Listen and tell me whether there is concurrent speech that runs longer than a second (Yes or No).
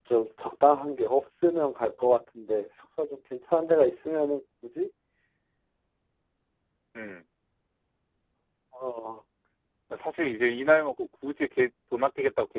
No